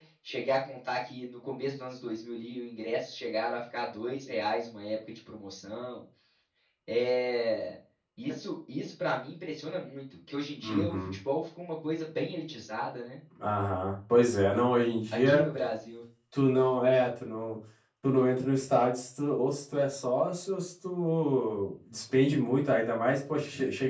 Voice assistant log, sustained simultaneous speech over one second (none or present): none